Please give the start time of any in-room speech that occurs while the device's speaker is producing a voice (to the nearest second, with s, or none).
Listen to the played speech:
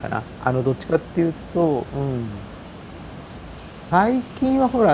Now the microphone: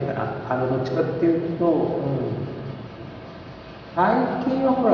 none